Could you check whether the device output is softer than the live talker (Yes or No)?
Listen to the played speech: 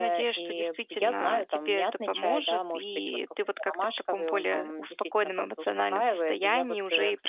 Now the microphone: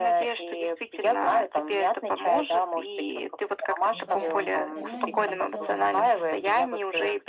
No